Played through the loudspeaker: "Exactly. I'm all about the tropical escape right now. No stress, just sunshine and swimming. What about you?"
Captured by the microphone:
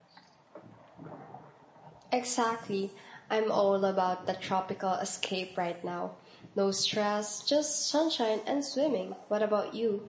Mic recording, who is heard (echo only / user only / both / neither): echo only